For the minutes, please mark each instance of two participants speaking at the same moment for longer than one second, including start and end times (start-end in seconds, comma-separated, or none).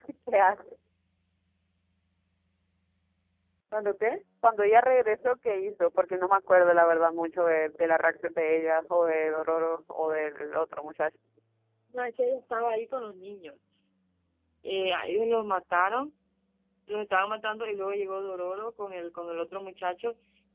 none